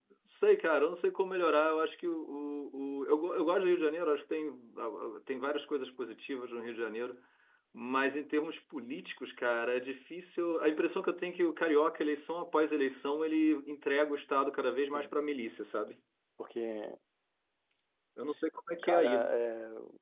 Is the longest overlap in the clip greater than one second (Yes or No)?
No